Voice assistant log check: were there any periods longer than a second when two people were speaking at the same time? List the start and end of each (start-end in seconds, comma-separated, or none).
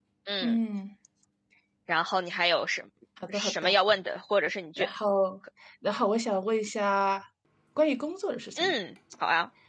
none